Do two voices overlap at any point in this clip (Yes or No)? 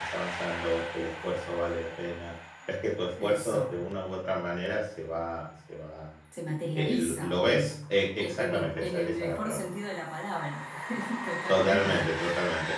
Yes